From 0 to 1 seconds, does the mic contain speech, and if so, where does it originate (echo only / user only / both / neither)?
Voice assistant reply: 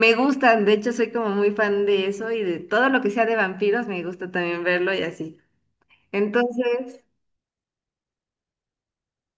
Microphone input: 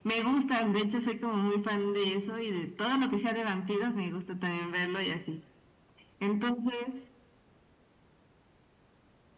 echo only